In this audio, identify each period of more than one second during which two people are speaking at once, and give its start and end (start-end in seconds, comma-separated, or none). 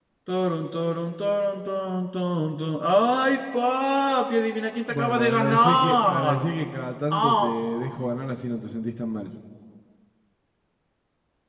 4.9-6.5